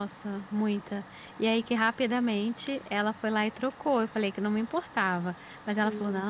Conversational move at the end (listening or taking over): listening